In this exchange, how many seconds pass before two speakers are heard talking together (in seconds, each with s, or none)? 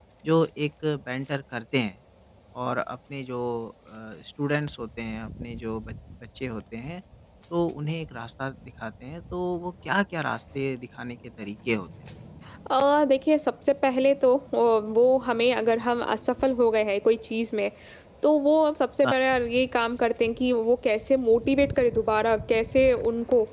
none